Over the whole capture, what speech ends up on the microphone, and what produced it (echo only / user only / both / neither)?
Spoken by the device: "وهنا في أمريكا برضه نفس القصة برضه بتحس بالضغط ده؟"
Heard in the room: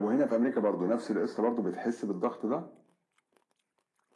echo only